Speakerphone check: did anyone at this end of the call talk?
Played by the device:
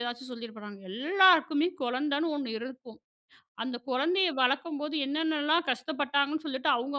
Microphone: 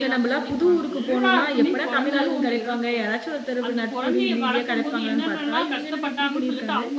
Yes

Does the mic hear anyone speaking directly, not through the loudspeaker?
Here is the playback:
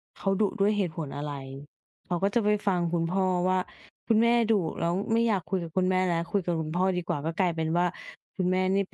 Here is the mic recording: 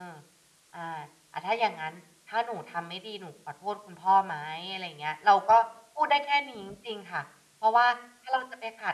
Yes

